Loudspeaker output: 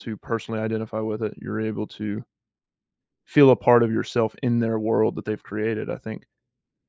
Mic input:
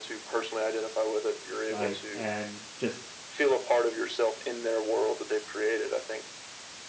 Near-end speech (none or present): present